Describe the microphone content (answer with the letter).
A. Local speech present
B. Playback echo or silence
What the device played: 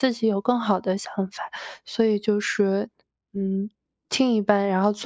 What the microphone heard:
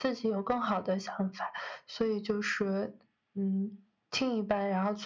B